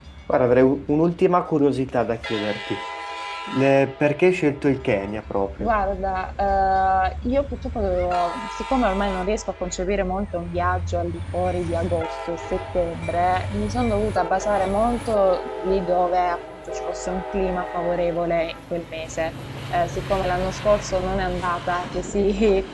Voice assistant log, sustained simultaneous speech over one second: none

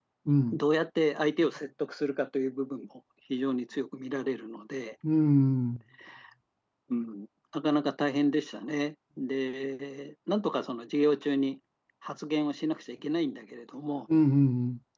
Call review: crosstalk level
none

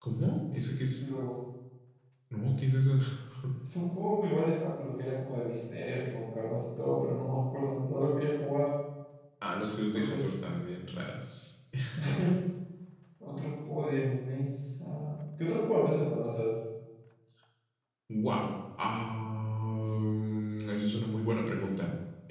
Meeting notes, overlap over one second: none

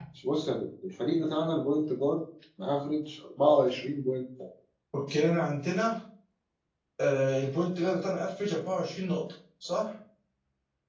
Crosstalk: none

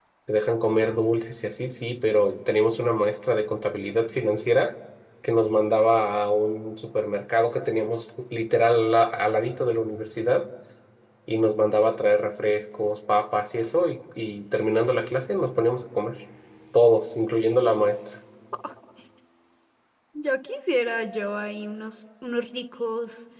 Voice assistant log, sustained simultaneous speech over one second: none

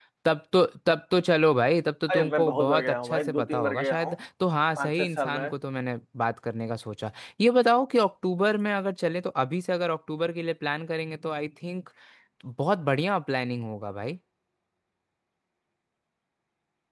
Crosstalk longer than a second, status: present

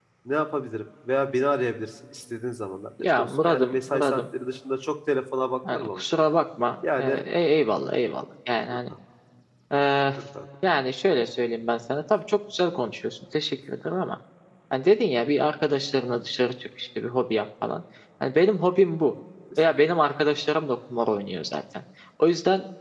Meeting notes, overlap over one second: present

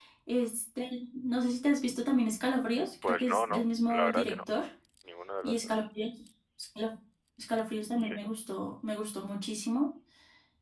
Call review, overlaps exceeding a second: present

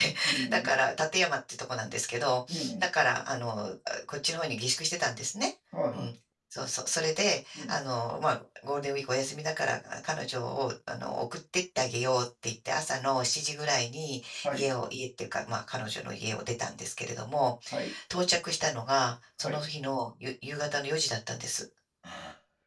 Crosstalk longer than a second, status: none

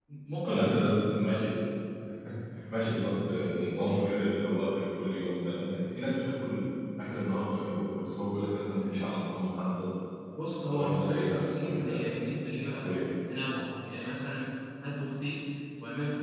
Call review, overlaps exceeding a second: present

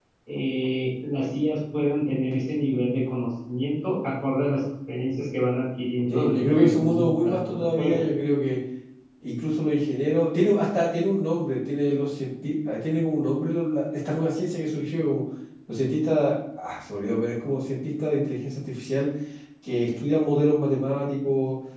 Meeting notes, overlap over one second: present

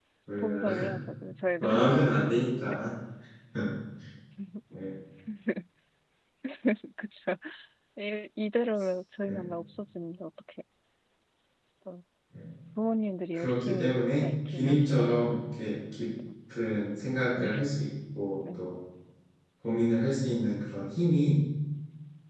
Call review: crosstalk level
present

